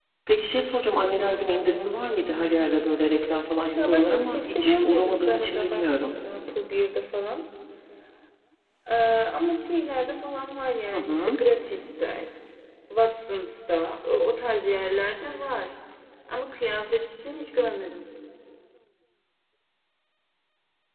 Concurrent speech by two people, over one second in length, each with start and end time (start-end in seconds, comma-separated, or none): 3.8-6.1